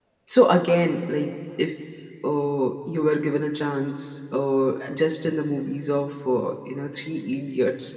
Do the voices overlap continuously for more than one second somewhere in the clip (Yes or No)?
No